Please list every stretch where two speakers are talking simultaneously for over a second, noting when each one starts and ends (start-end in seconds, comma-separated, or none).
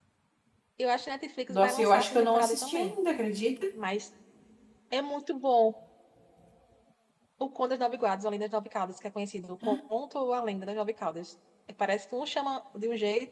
1.5-2.9